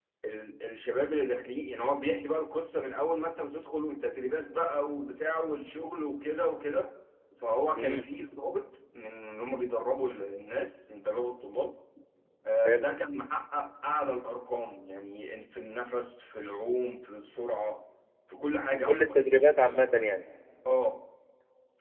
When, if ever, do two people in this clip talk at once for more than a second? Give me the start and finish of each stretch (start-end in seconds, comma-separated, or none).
none